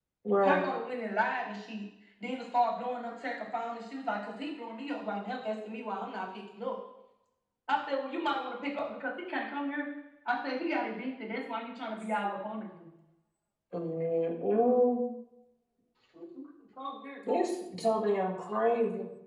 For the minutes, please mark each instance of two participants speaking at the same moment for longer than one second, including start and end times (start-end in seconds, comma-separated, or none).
none